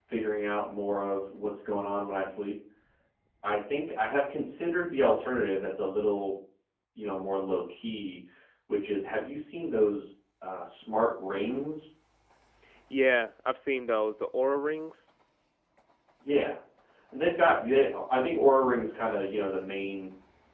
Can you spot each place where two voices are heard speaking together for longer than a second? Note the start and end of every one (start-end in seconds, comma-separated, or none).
none